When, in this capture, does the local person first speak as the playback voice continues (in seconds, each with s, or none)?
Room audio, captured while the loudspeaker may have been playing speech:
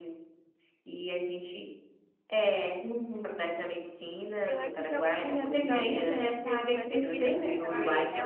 4.5 s